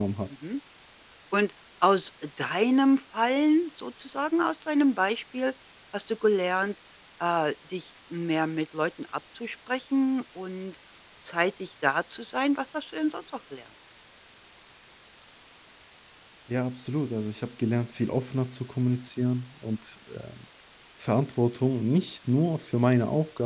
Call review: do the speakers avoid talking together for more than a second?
Yes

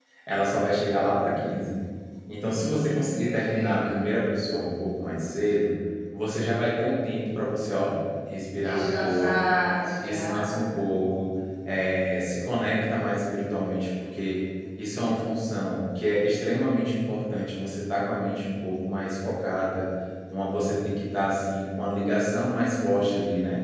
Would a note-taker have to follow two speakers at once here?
Yes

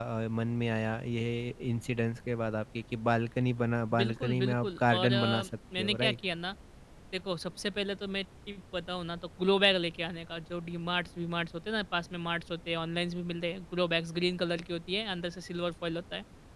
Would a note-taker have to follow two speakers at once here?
Yes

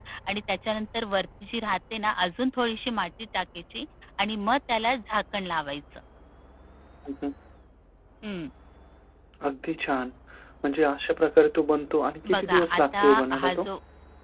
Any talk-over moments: Yes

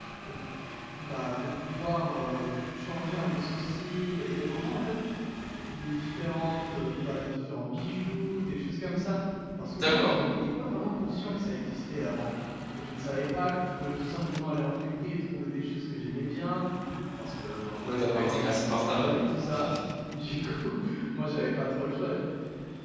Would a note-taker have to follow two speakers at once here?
Yes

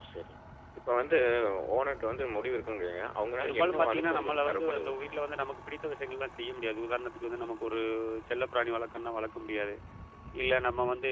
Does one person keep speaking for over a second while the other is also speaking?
Yes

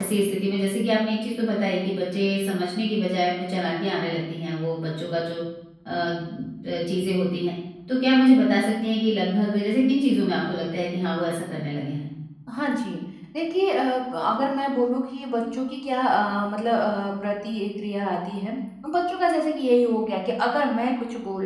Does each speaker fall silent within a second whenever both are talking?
Yes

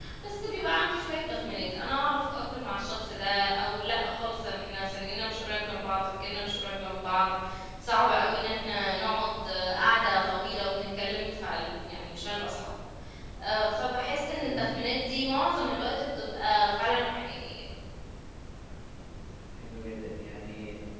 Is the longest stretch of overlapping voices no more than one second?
Yes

